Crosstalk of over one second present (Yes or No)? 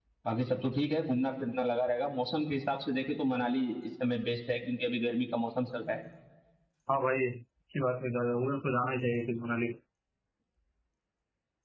No